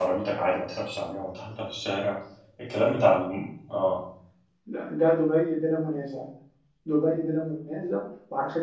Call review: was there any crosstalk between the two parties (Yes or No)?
No